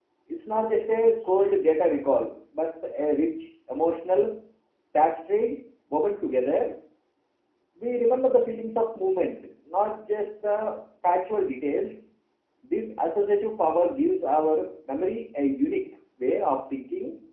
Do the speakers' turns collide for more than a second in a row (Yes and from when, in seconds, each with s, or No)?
No